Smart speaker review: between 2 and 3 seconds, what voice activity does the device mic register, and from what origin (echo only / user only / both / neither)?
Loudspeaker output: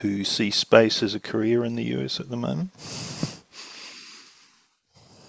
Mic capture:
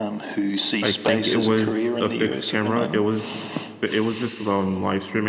both